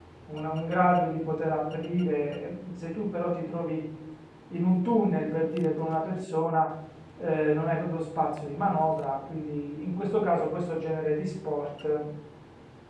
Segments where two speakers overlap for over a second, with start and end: none

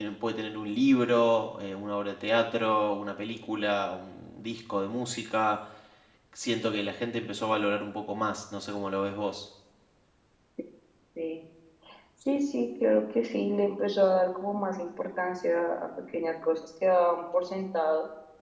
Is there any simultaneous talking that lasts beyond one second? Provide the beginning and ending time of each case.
none

